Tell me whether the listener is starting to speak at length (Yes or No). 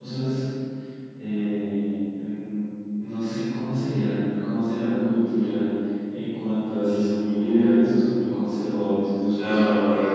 Yes